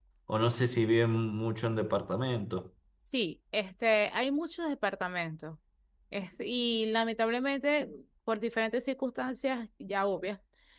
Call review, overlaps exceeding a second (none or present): none